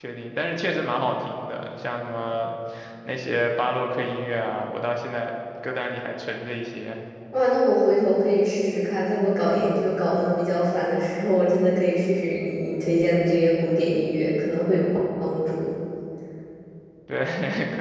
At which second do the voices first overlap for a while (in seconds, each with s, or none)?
none